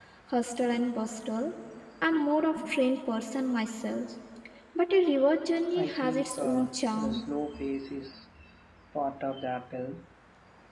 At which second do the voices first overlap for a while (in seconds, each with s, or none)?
5.8 s